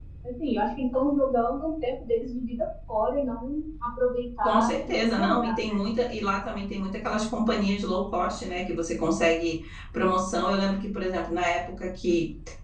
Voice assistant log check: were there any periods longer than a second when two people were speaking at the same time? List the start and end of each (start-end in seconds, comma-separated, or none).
4.4-5.8